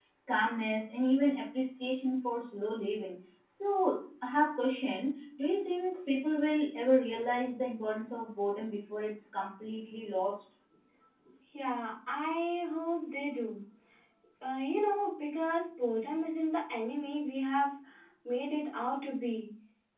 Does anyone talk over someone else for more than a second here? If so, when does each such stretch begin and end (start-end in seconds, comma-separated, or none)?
none